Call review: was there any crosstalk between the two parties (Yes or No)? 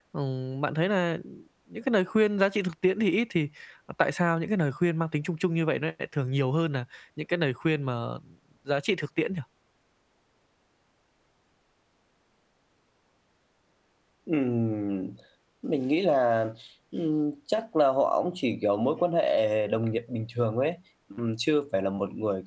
No